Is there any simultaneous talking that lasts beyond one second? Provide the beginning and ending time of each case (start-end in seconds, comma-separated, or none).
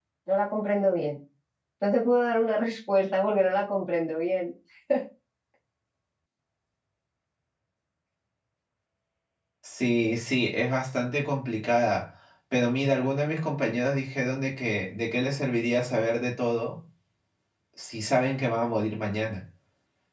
none